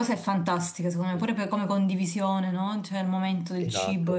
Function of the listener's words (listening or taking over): taking over